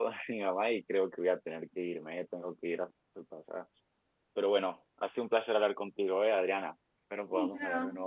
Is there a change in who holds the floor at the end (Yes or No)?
Yes